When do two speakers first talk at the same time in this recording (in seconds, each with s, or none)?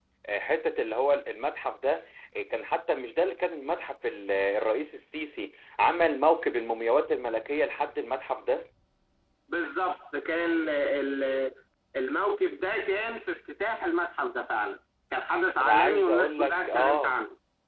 15.6 s